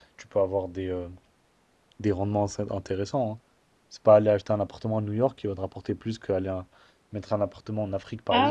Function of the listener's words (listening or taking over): taking over